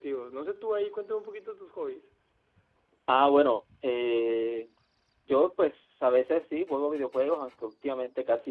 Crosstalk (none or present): none